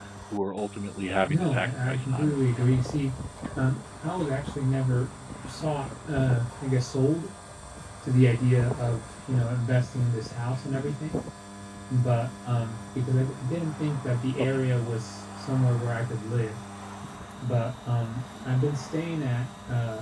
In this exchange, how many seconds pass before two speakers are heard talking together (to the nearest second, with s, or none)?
1 s